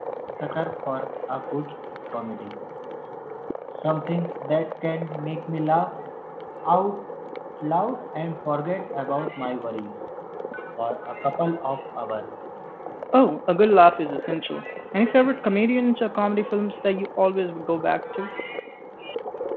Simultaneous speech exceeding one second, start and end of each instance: none

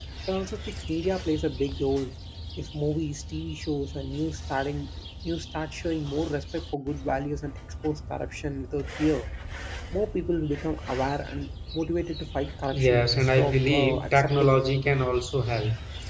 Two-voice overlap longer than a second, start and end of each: 12.7-14.6

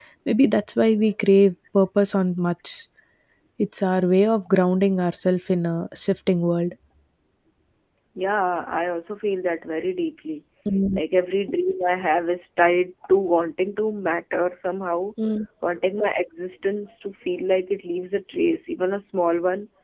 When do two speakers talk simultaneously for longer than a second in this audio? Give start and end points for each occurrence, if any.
none

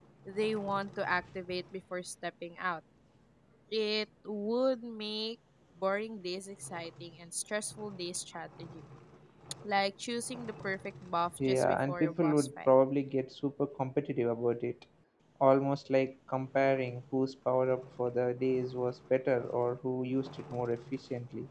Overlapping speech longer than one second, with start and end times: 11.4-12.7

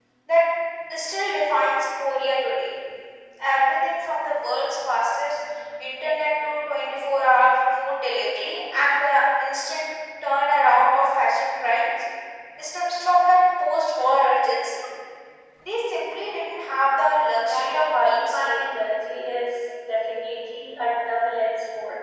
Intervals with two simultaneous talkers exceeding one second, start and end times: 17.3-18.6

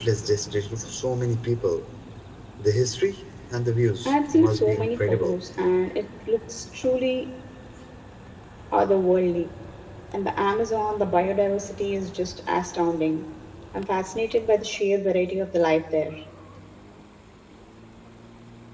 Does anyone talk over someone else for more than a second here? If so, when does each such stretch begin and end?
4.0-5.4

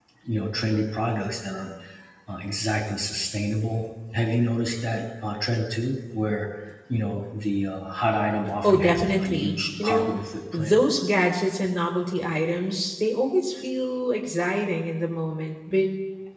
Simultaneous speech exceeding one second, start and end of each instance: 8.6-10.1

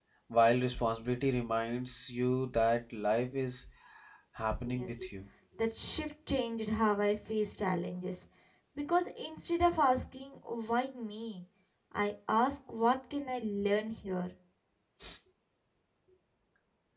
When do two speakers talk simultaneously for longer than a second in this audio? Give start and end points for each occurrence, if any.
none

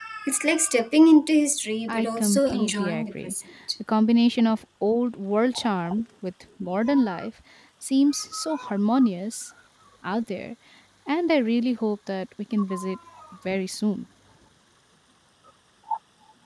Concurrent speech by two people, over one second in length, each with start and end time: 1.9-3.3

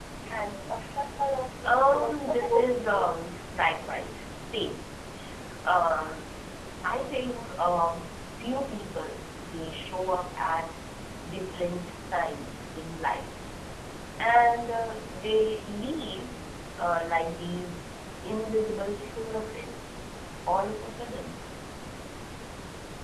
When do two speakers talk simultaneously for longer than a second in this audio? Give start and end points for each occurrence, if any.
1.6-3.2

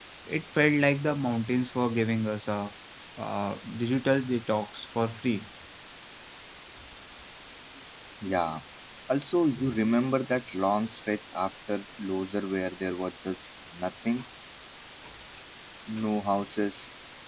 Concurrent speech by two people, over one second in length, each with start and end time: none

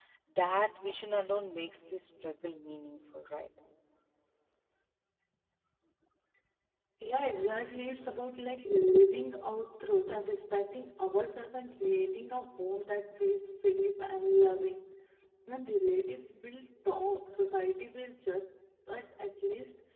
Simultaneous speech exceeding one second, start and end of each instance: none

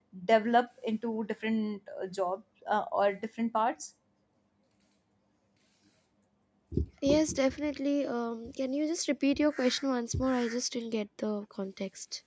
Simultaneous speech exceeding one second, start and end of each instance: none

